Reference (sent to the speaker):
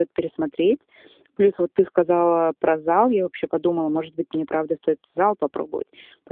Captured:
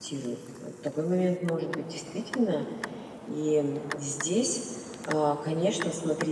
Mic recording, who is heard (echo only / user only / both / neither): user only